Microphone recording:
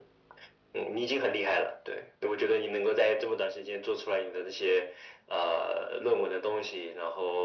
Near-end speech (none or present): none